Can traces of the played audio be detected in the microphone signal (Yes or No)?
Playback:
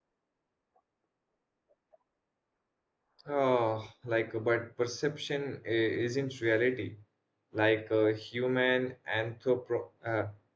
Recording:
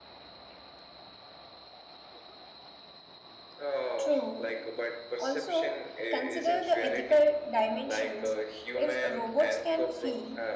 Yes